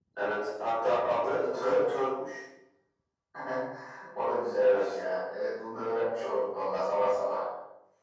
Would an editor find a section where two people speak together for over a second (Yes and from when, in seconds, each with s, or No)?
No